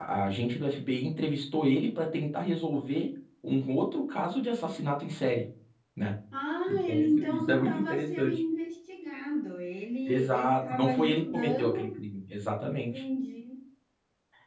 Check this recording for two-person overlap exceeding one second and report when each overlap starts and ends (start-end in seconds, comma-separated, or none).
6.7-8.4, 10.1-12.0